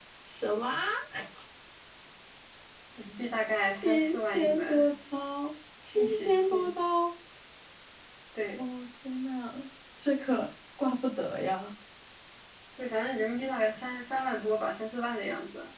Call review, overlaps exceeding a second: present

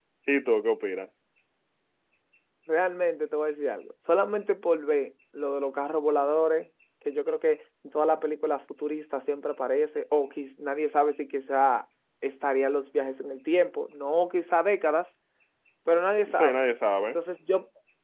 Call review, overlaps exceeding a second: none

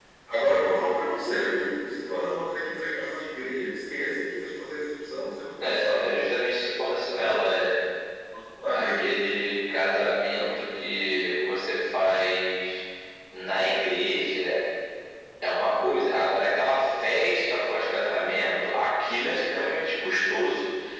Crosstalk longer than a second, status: none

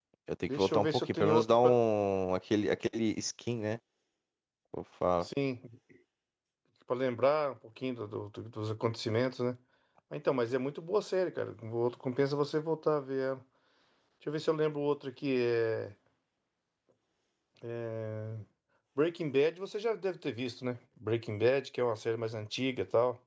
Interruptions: present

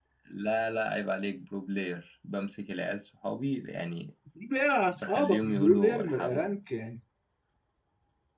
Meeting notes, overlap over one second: present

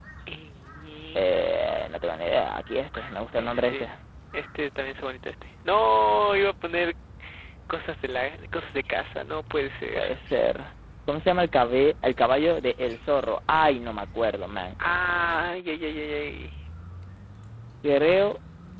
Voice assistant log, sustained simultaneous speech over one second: none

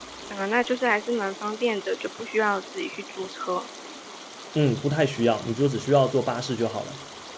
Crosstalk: none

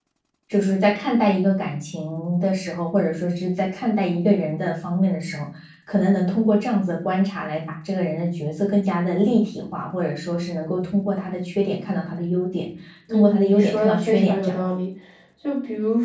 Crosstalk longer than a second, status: present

